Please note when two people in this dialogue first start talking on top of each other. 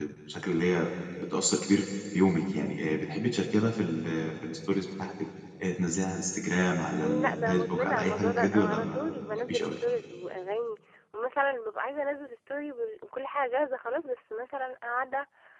7.0 s

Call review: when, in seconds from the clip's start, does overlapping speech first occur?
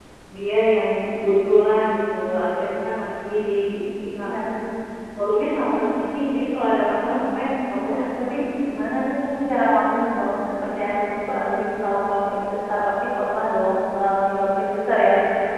none

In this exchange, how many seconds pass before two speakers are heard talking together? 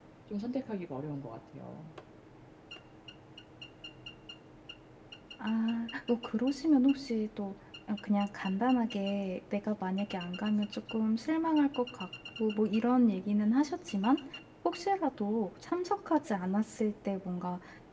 none

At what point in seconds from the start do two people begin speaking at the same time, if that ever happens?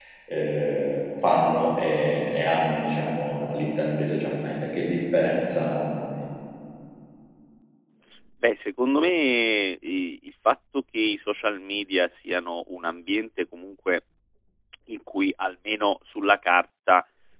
none

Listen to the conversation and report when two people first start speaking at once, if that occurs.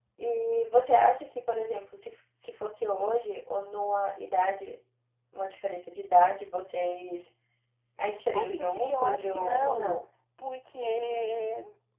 8.3 s

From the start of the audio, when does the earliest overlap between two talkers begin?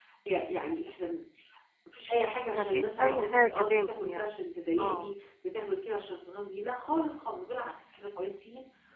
2.5 s

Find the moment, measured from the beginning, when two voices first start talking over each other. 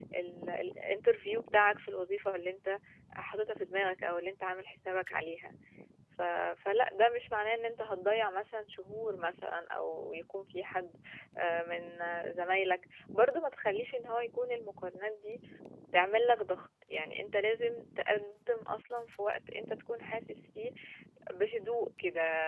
none

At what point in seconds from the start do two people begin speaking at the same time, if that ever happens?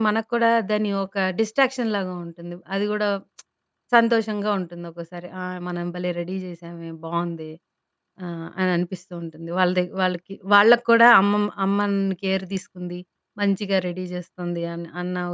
none

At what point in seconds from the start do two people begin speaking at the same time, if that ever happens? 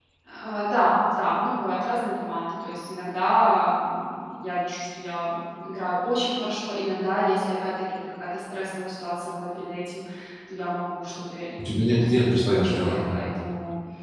11.6 s

